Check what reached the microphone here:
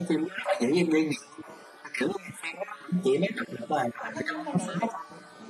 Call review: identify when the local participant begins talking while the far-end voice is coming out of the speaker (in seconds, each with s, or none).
4.0 s